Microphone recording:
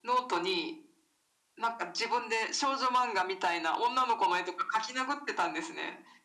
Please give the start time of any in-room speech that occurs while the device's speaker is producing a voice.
none

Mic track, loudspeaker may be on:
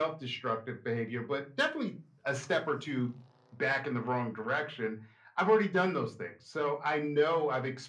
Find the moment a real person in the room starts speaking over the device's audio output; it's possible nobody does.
none

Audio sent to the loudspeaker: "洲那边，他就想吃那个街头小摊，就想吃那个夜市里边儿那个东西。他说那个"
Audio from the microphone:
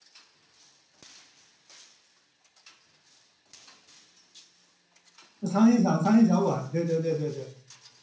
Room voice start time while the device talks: 5.4 s

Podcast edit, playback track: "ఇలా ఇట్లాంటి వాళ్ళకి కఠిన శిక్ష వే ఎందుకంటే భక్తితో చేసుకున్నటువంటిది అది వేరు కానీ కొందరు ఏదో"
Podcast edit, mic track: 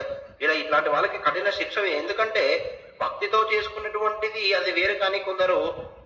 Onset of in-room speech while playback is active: none

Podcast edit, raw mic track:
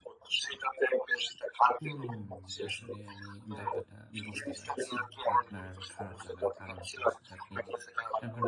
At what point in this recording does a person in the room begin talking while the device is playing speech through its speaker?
1.8 s

